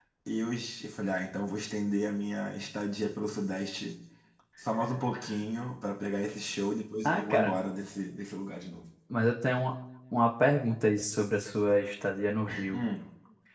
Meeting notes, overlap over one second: none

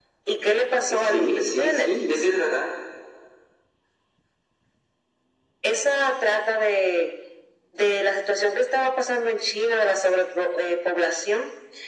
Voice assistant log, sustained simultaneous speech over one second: present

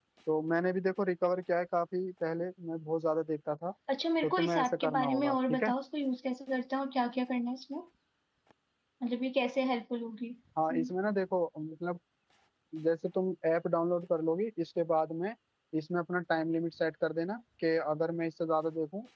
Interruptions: present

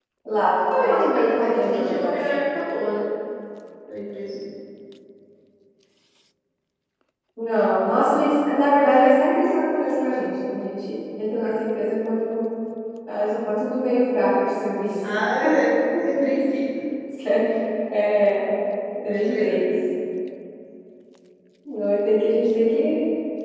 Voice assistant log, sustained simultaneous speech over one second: present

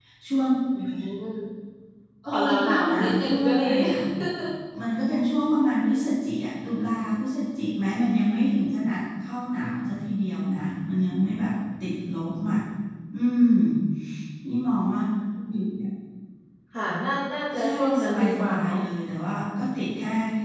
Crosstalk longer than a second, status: present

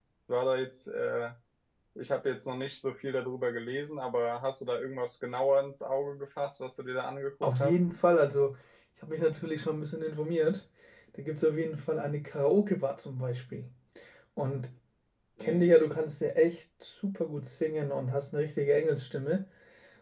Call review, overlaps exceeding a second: none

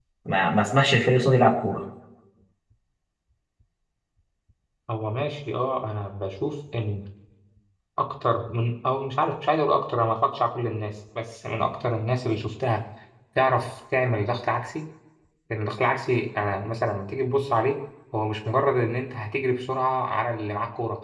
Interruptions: none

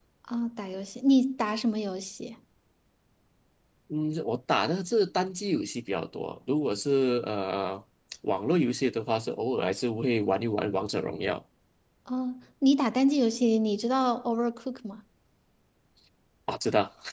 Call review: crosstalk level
none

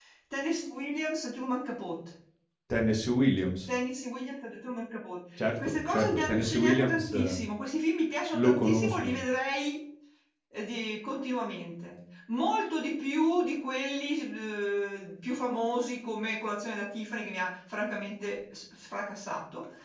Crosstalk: present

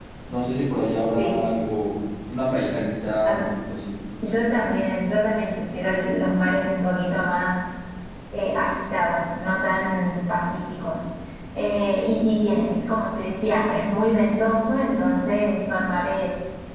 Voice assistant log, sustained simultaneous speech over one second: none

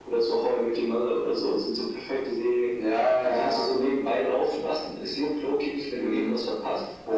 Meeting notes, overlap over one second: none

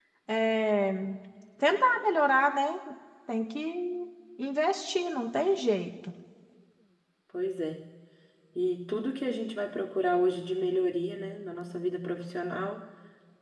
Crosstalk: none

